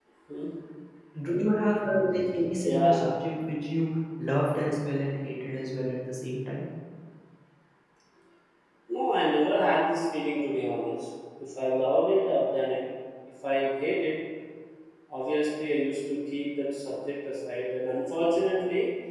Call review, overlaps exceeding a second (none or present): none